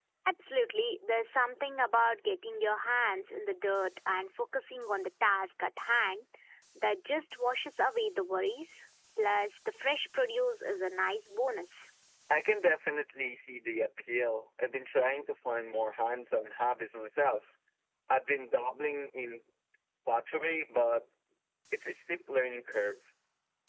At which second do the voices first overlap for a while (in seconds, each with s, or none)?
none